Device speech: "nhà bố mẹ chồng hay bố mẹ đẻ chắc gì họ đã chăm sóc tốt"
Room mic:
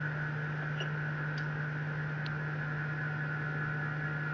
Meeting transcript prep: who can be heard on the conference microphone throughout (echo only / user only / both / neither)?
neither